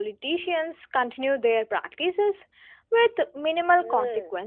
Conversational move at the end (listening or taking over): taking over